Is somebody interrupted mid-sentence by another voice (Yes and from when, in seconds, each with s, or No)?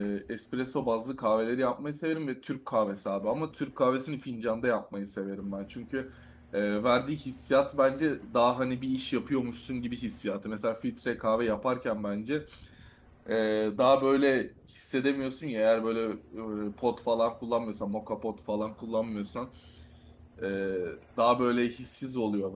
No